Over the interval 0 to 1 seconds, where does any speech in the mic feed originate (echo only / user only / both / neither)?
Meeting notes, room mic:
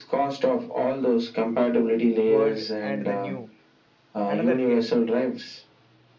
echo only